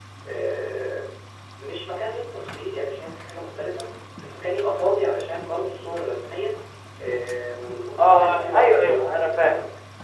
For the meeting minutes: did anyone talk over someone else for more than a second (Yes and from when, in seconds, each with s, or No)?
Yes, from 8.0 s